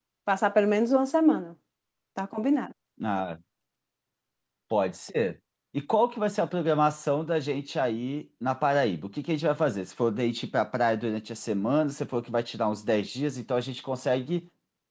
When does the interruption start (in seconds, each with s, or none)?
none